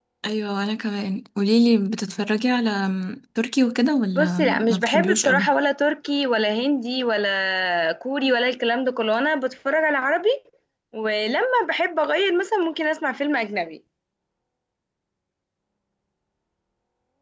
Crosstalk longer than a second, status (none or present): present